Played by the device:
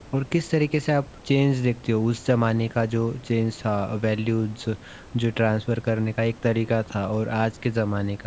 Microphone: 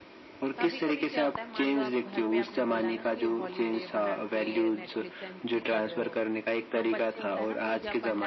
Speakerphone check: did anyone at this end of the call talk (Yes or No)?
Yes